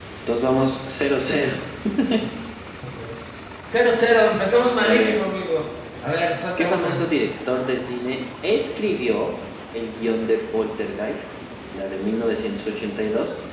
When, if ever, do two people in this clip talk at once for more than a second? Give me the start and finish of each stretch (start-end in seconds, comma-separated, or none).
none